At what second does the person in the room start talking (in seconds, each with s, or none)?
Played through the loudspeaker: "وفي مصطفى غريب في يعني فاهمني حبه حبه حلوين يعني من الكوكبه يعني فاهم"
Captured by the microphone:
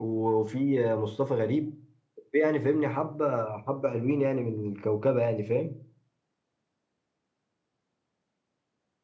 none